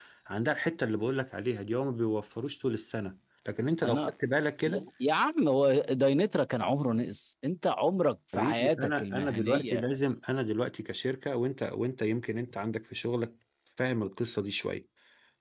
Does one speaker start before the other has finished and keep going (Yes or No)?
Yes